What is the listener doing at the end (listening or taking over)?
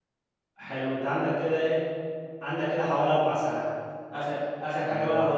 listening